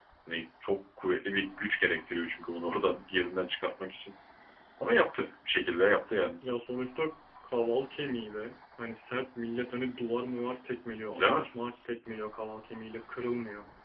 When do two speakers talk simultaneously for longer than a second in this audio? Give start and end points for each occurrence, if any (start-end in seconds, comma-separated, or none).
none